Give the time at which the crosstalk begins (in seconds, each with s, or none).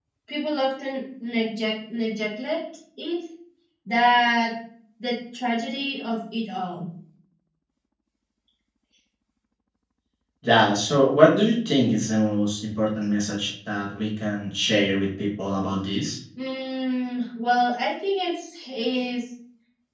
none